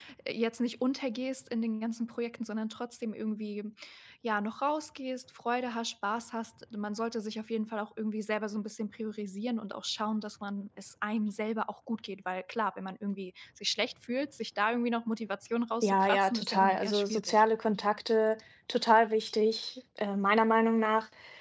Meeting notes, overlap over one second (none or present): present